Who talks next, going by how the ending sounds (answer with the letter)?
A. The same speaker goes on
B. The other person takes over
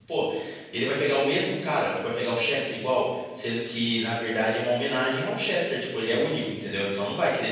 A